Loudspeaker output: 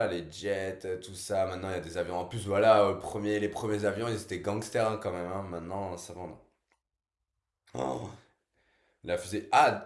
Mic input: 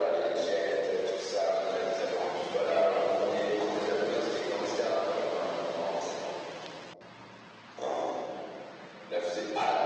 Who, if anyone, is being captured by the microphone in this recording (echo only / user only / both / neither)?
echo only